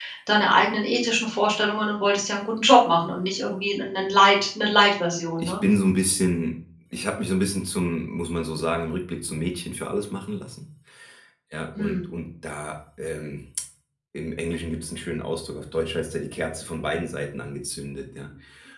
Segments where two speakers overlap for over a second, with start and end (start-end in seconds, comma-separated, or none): none